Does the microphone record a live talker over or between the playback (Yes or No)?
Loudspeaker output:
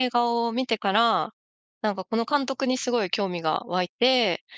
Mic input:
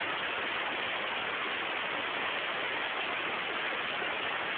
No